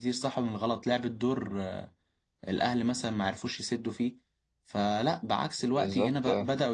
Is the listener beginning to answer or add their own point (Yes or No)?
No